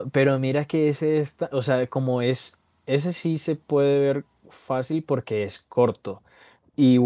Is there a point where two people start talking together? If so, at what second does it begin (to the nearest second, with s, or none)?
none